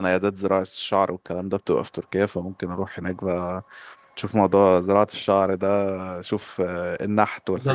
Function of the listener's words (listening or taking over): taking over